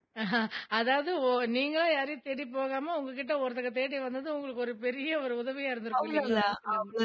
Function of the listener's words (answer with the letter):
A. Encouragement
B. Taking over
B